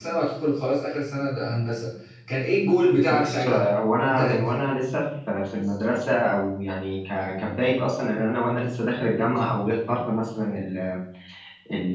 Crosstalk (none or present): present